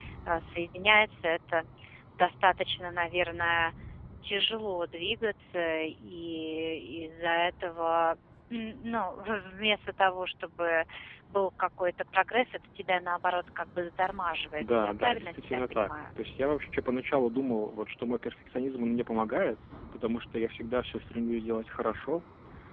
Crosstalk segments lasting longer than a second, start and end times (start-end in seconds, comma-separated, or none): 14.6-16.0